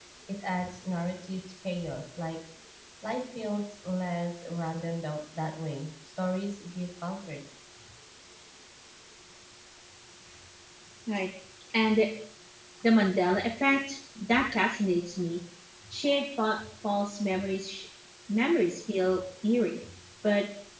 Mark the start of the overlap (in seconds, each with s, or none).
none